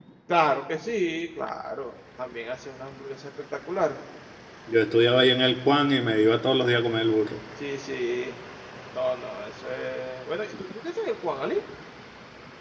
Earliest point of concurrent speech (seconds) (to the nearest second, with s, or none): none